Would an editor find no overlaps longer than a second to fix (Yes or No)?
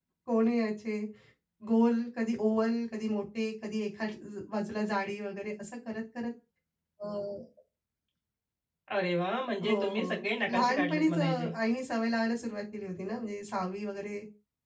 No